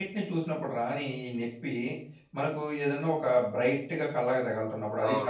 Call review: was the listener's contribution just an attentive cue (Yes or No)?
No